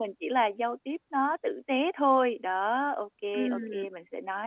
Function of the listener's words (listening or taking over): listening